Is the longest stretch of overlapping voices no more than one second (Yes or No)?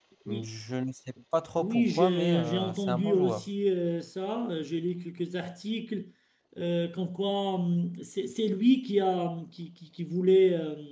No